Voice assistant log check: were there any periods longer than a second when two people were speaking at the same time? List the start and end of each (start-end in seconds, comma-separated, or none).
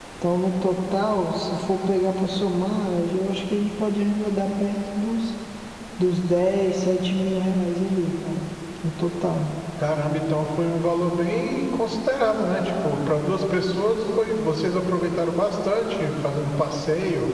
none